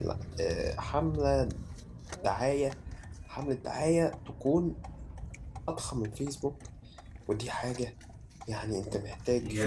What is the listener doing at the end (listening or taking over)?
taking over